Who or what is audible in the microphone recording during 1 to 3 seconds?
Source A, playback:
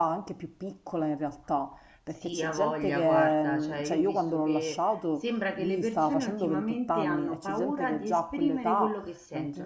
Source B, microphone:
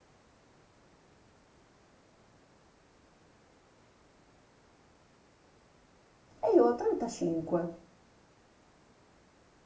neither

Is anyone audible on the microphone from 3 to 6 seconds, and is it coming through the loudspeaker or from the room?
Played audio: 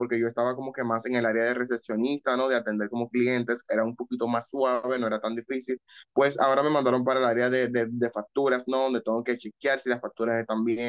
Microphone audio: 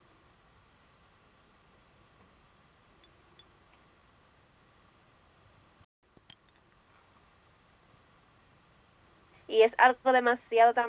neither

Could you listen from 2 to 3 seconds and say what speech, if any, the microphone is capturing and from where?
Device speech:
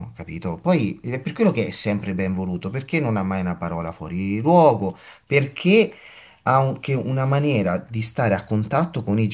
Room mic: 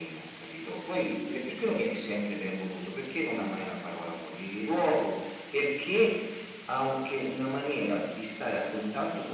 echo only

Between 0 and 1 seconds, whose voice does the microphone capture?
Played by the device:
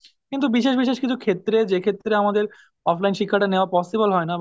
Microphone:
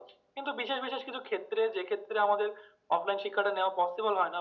echo only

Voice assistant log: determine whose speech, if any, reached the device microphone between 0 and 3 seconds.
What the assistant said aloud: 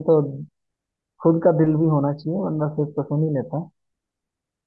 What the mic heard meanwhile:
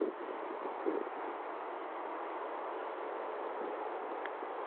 neither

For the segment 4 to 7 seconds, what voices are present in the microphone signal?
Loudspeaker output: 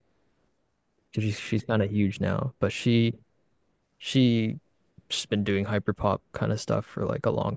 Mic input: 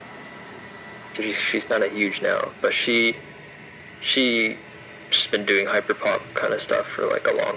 echo only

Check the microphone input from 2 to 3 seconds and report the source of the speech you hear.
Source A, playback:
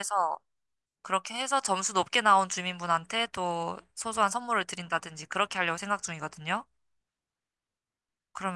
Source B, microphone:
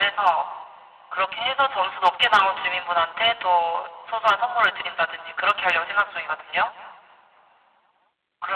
echo only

